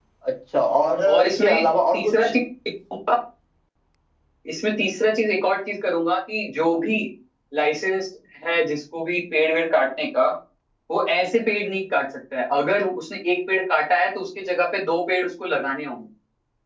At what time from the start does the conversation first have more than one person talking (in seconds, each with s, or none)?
1.1 s